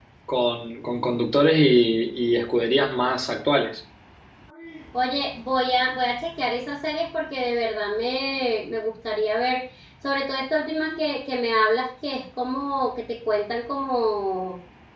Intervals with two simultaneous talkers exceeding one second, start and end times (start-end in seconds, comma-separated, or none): none